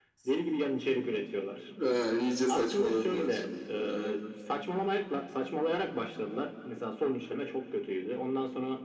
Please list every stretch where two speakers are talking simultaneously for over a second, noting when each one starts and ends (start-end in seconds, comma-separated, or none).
2.5-4.2